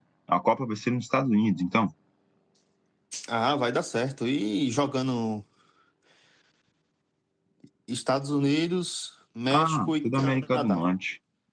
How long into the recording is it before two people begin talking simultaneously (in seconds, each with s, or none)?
9.5 s